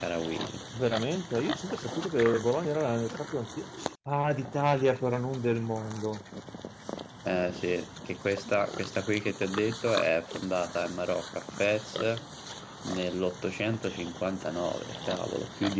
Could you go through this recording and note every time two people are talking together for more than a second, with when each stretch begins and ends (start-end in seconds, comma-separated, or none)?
none